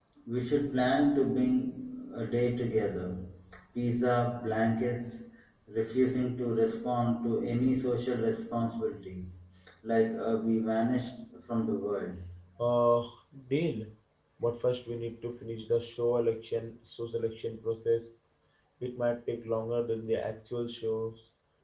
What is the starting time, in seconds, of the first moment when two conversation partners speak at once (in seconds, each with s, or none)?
none